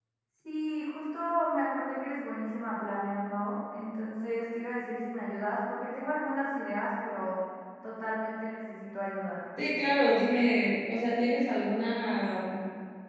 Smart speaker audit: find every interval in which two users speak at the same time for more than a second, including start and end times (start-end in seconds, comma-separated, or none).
none